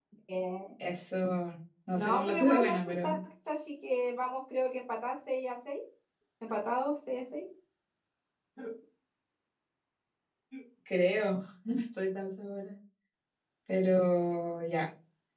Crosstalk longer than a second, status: present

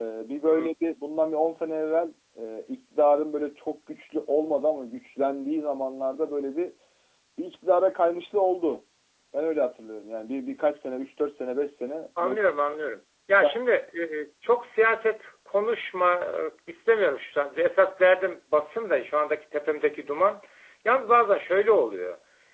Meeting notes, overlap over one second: none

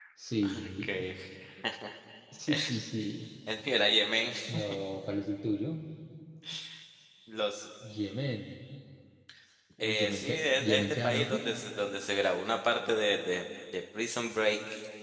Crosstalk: present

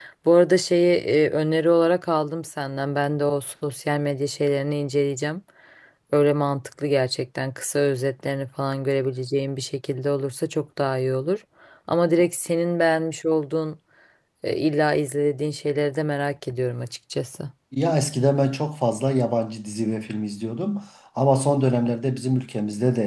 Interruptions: none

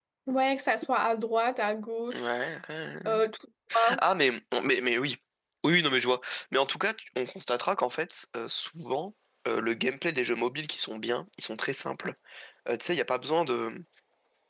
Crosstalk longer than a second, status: none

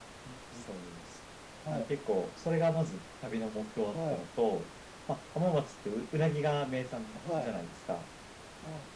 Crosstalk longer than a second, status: none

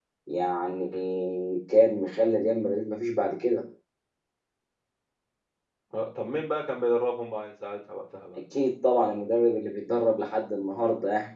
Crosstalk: none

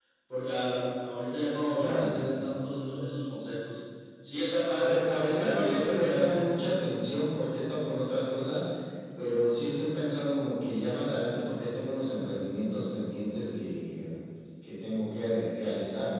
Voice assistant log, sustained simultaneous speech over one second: present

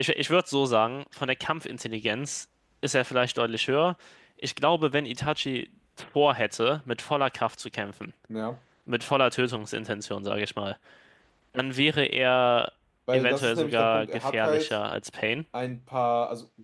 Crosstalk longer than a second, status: present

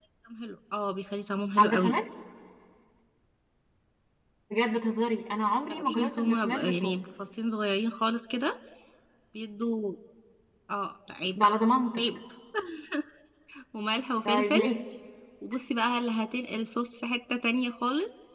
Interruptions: present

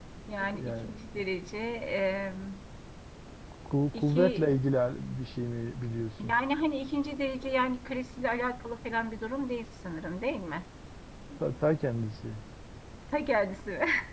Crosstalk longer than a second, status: none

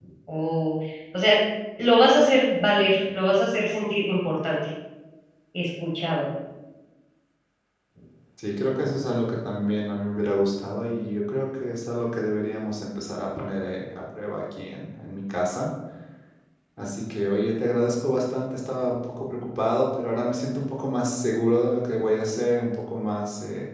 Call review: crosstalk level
none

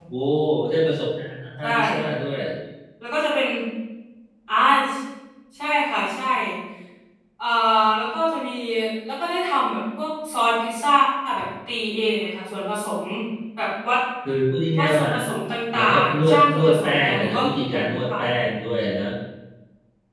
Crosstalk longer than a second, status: present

